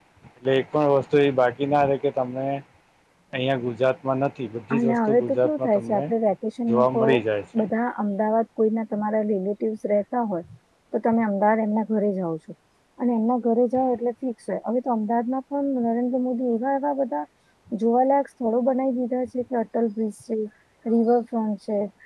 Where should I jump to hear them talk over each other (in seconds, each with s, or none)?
4.8 s